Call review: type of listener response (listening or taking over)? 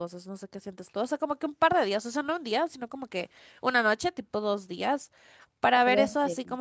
listening